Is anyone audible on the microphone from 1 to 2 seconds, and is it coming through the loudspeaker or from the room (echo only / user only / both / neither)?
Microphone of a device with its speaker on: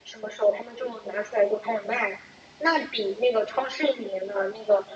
echo only